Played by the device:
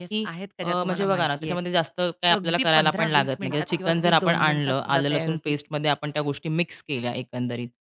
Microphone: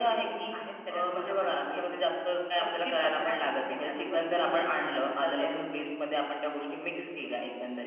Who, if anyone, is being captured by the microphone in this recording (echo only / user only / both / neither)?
echo only